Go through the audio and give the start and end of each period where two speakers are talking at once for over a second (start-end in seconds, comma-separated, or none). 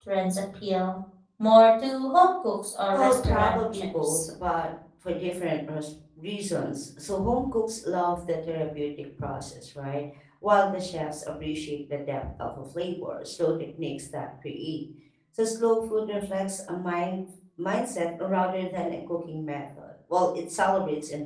2.9-4.3